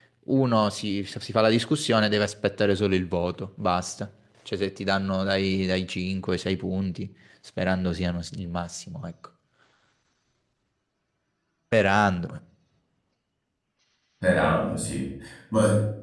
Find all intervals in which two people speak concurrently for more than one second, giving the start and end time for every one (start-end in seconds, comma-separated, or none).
none